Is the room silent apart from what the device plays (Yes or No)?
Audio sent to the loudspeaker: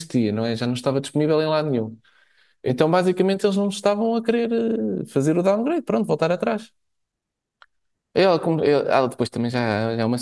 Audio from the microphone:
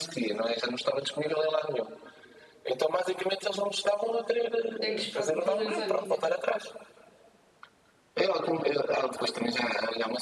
No